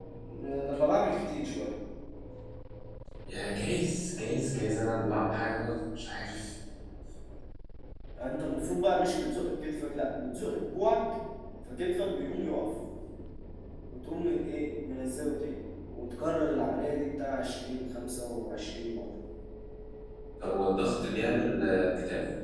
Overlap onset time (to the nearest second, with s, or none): none